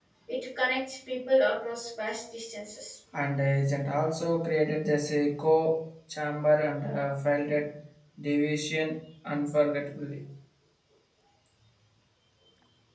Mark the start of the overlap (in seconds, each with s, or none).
none